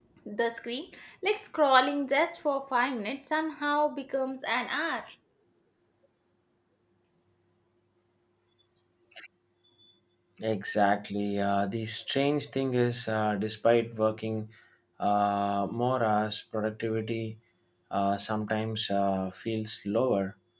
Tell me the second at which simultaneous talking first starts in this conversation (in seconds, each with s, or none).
none